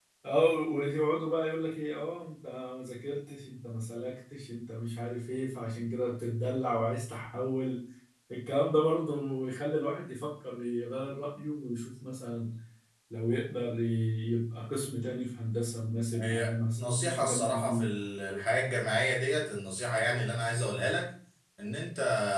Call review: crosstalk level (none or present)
present